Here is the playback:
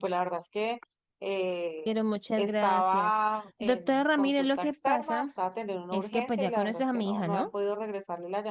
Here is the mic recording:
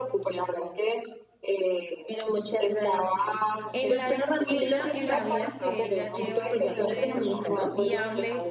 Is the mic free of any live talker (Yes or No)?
No